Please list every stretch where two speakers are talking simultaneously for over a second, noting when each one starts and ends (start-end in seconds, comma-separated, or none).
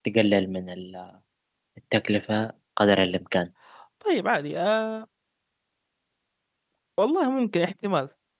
none